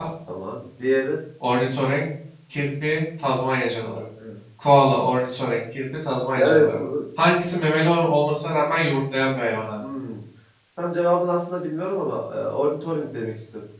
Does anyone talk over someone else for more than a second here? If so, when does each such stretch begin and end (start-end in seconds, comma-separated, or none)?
none